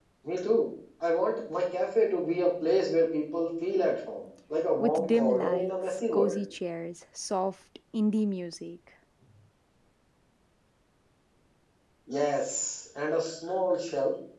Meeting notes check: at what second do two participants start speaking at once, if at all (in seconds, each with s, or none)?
4.8 s